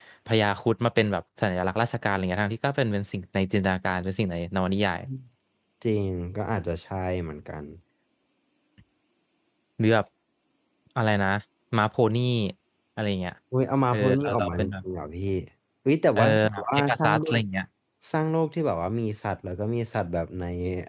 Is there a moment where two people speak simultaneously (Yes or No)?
Yes